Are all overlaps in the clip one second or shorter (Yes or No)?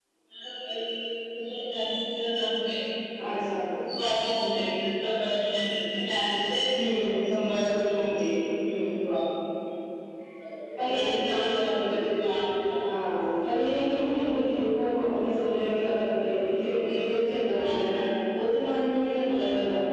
Yes